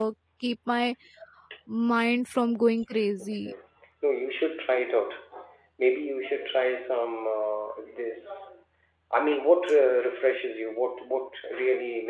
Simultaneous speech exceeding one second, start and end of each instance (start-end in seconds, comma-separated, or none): none